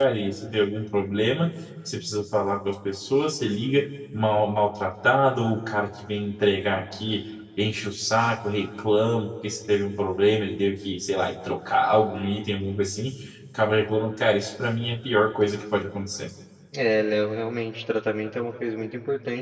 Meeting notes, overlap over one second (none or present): none